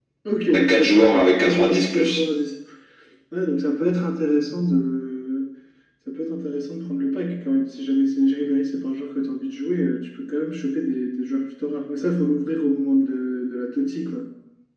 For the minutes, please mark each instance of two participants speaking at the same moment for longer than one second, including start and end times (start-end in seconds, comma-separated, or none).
0.5-2.2